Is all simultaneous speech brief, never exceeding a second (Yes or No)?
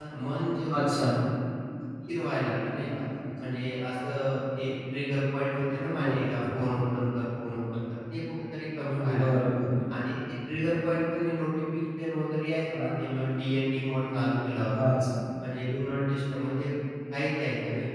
Yes